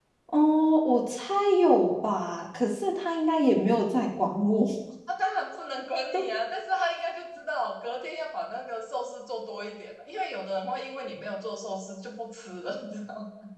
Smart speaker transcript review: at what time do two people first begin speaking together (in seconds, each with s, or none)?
none